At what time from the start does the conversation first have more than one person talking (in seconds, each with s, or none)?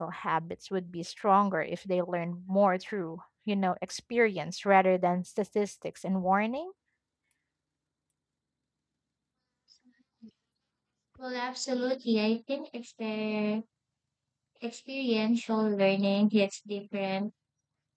none